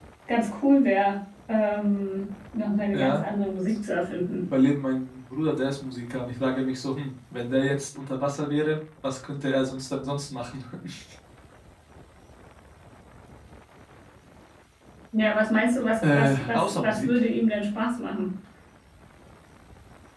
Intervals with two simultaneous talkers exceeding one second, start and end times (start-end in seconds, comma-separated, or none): 16.0-17.2